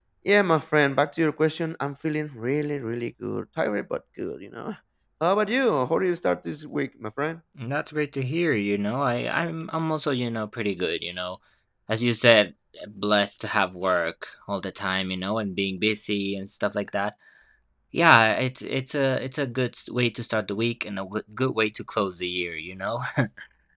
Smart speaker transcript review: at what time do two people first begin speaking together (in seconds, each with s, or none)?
none